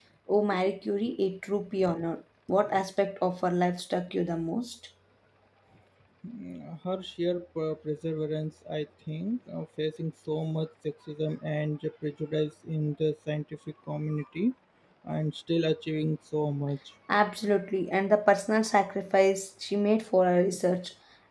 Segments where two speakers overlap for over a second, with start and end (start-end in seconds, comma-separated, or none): none